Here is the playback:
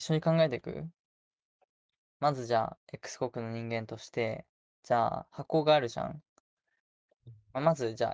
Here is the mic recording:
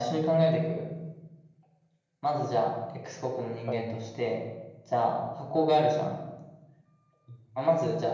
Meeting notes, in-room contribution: present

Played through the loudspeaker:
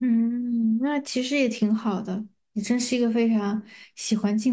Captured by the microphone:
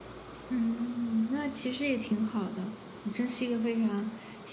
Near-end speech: none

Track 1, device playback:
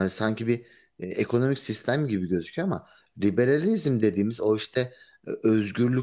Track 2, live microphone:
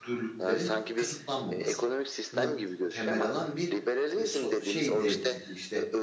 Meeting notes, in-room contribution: present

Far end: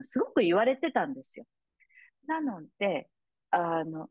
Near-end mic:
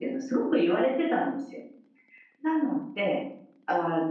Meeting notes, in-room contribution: none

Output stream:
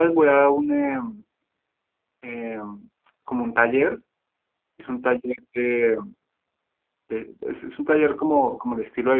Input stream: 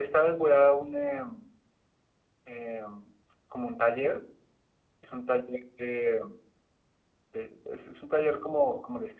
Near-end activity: none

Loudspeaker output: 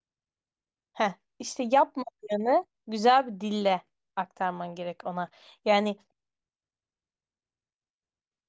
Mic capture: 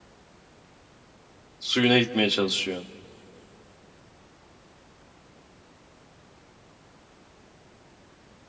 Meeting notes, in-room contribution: present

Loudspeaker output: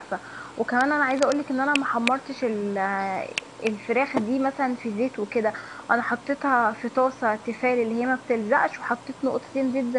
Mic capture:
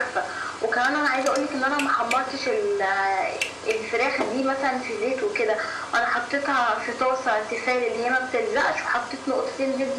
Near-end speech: none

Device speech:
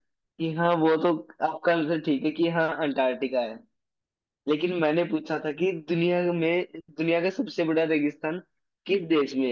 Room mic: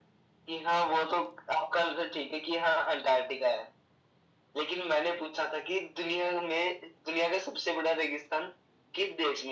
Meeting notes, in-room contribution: none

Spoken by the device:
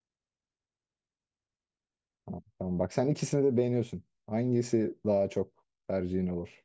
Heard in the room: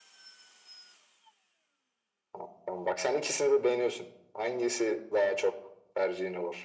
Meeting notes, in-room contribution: none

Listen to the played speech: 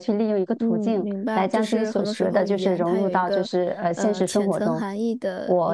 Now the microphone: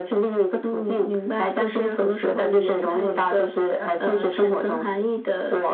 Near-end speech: none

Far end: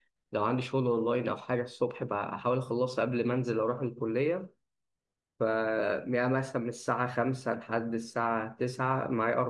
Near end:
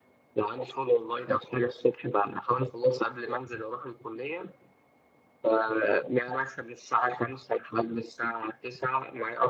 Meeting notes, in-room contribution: none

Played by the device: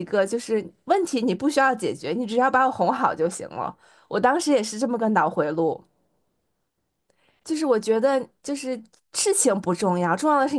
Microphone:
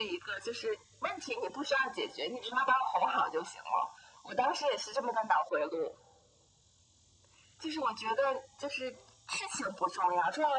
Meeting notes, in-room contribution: none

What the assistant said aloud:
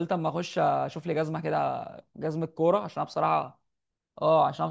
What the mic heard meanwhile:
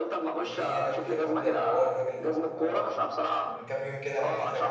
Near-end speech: present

